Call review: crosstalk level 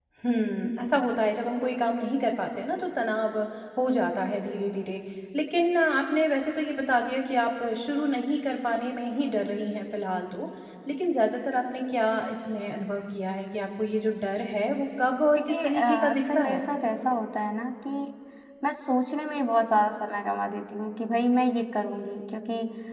present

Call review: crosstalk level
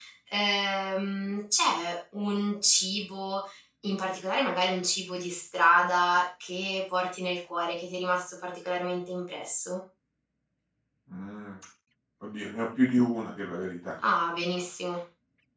none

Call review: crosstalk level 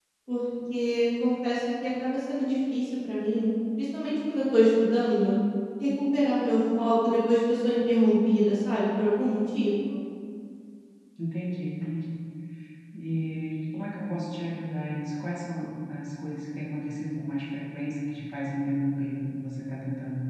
none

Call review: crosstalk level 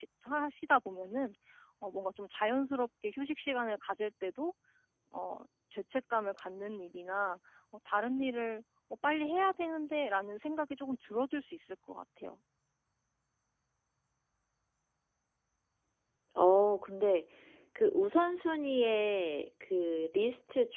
none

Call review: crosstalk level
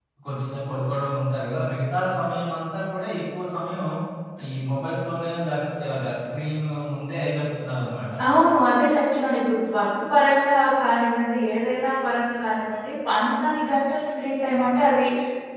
none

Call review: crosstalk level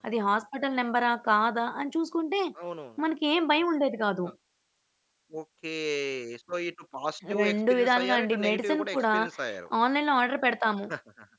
present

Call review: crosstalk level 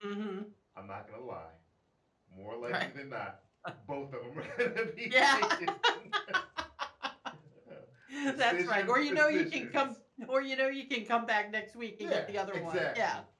present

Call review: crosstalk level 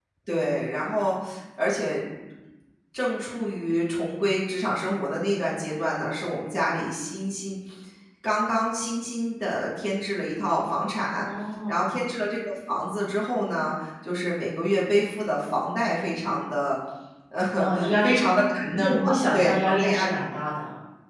present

